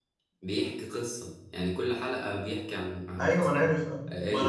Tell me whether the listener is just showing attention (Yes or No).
No